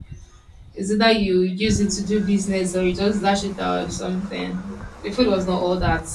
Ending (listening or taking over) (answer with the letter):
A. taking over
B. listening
B